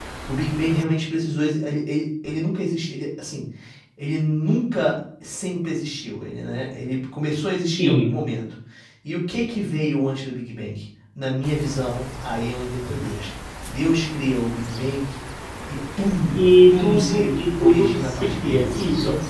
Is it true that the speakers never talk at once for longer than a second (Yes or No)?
No